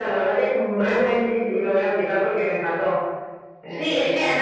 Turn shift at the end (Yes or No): Yes